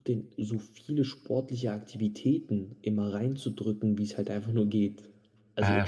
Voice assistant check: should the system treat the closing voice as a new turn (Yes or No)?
Yes